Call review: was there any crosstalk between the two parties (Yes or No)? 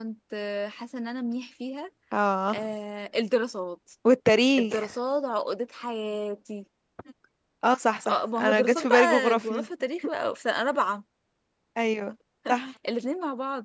Yes